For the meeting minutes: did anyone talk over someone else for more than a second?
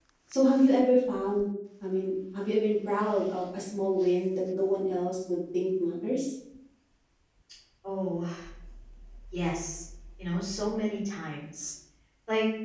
No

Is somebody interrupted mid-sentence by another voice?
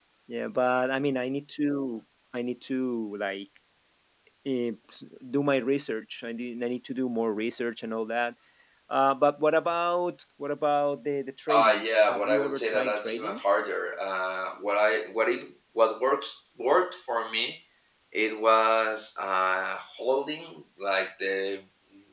Yes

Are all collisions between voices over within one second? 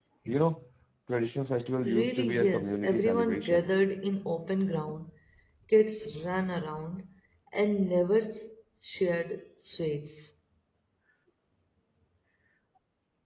No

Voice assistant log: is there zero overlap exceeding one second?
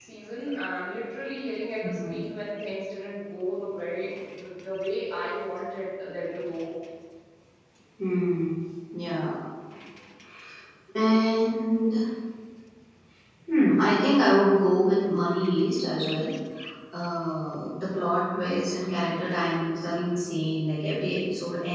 Yes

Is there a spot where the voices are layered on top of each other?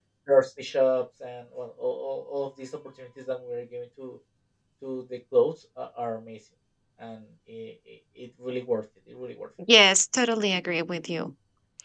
No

